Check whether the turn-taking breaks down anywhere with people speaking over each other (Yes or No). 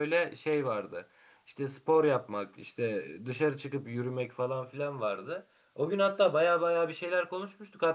No